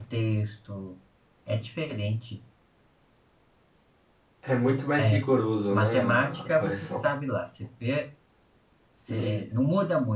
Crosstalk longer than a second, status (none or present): present